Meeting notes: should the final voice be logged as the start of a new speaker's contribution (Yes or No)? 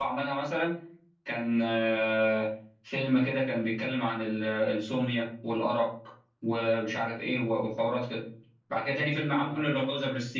No